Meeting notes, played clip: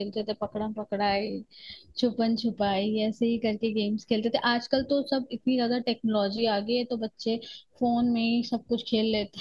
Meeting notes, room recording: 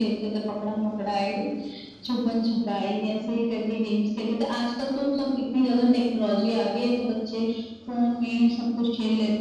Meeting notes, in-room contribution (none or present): none